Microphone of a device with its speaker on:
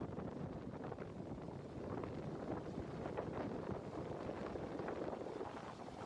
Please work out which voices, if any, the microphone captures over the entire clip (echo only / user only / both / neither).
neither